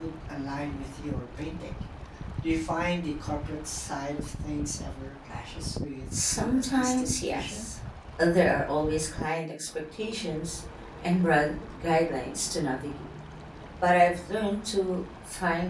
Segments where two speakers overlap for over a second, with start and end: 6.1-7.6

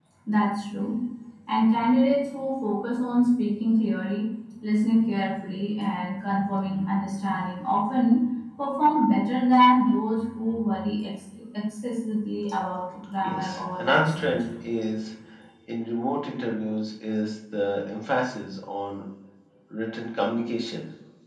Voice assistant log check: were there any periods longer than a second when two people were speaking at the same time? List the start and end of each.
13.2-14.5

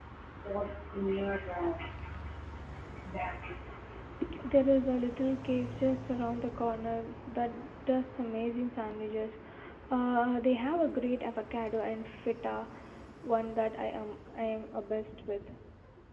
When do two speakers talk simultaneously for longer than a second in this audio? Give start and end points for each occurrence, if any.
none

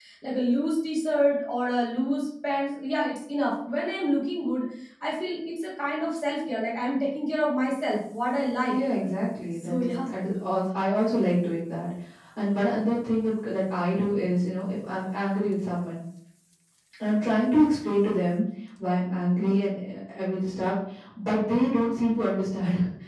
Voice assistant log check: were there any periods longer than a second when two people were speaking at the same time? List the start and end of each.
none

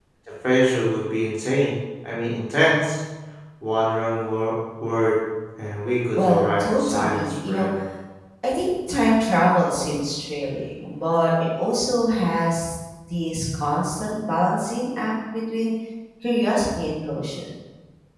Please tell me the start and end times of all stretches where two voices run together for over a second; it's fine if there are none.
6.2-7.7

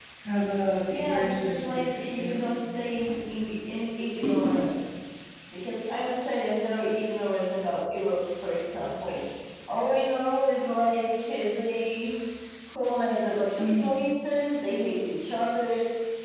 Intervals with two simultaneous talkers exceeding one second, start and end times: 0.9-2.5

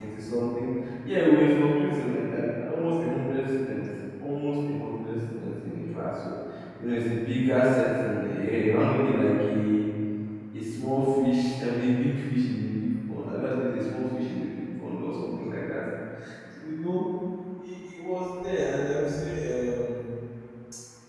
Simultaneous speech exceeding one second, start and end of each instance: none

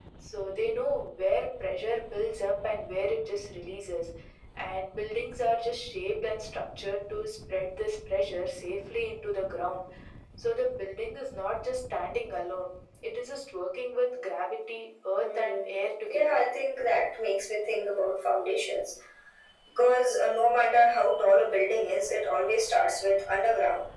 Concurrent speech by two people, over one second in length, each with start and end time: 15.2-16.4

